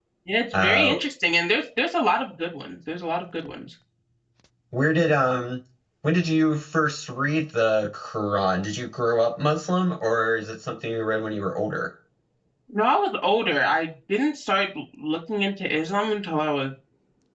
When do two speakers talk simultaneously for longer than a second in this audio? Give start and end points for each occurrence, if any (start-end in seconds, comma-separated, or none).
none